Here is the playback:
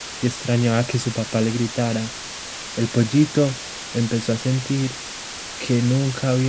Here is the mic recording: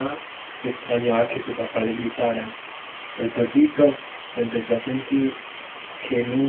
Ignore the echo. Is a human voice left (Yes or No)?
No